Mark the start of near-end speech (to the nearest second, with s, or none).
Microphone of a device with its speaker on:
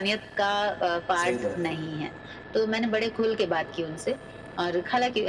1 s